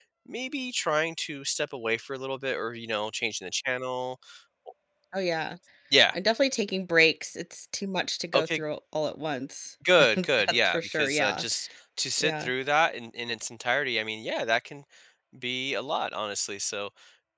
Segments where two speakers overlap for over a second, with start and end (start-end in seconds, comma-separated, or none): 10.1-11.4